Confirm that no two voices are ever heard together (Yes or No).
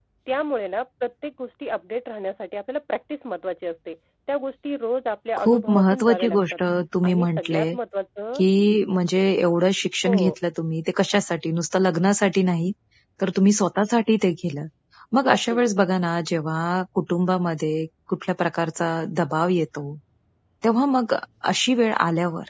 No